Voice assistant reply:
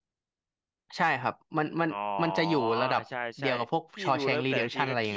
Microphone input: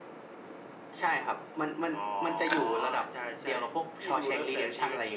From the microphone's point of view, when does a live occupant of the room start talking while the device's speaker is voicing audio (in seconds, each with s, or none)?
2.5 s